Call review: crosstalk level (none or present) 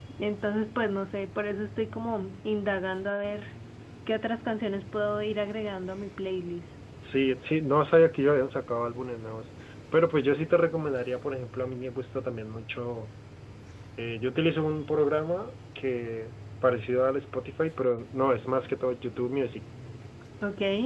none